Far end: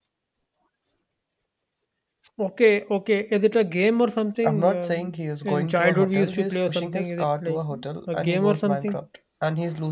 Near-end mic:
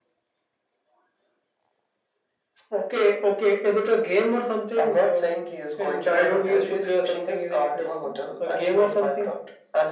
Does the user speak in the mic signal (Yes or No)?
No